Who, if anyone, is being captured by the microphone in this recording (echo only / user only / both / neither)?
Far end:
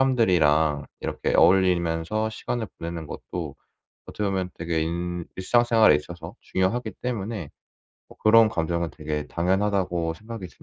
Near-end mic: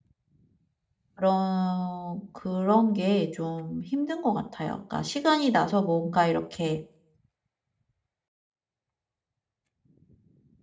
user only